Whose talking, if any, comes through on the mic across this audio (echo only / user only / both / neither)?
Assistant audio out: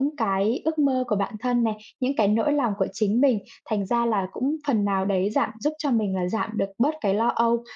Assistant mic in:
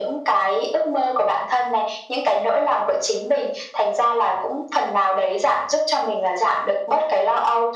echo only